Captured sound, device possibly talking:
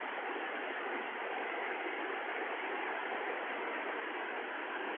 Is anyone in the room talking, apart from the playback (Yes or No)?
No